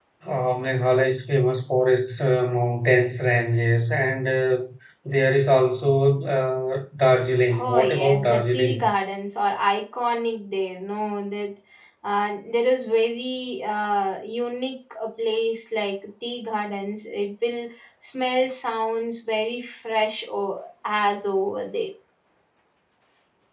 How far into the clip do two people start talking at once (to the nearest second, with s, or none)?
8 s